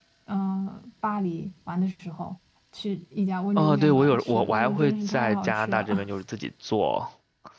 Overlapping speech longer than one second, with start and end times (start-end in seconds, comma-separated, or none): 3.5-6.1